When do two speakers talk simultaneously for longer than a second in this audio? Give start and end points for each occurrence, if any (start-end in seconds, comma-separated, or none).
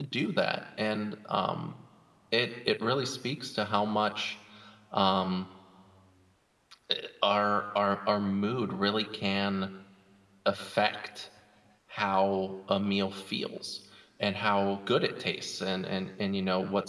none